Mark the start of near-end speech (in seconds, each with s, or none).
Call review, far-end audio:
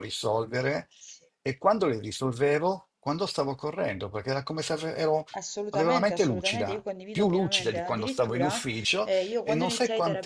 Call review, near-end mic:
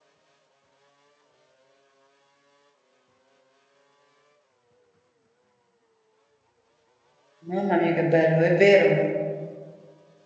7.4 s